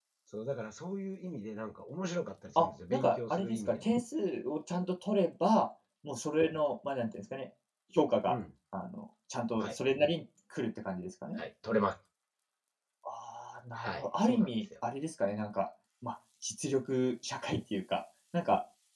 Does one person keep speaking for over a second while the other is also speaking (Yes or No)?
Yes